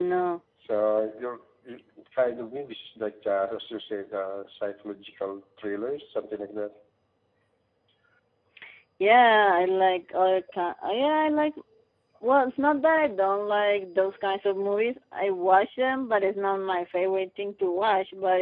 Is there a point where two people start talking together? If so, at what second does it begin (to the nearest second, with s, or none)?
none